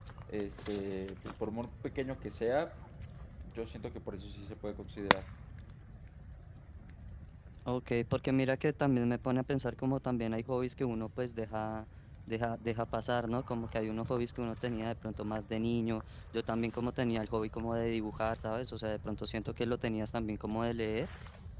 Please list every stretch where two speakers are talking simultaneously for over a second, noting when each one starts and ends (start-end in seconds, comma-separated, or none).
none